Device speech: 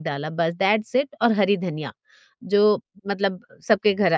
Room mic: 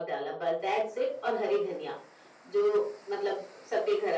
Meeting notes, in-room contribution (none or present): none